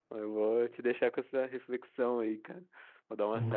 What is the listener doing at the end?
listening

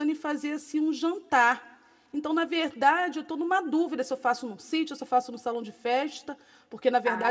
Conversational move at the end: listening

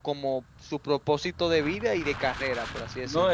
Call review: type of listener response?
taking over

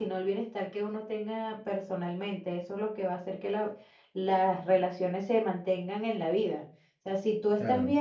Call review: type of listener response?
listening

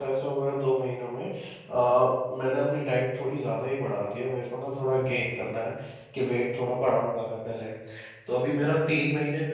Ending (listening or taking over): listening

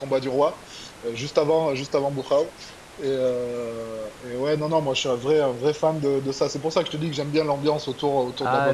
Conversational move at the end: taking over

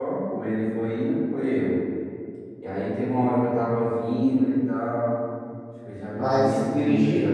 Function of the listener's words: listening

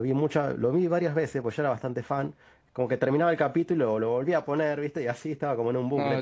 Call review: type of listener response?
taking over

